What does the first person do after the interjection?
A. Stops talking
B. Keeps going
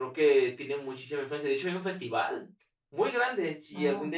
B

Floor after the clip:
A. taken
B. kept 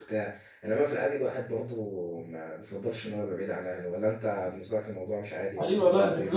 A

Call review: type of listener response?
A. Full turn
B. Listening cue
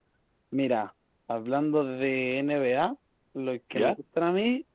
B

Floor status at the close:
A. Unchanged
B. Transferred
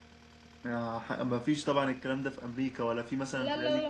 B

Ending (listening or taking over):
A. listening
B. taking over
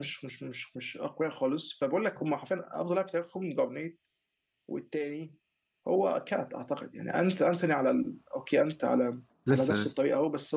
A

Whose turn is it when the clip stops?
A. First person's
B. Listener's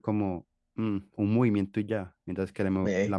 A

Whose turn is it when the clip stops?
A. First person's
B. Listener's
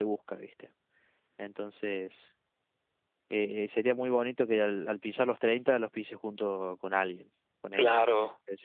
B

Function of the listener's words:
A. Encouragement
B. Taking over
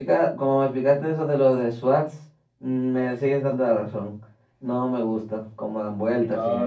B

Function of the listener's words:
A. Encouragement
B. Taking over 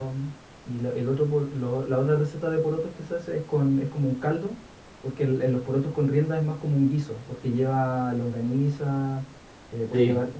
A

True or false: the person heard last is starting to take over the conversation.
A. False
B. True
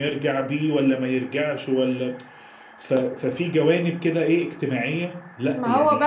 B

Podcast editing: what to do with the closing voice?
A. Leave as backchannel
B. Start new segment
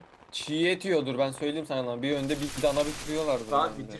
B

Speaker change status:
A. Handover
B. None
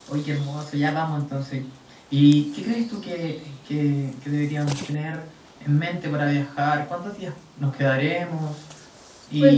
A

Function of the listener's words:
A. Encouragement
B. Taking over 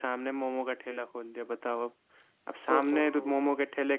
A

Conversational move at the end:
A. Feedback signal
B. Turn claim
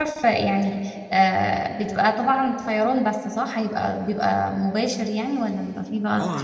B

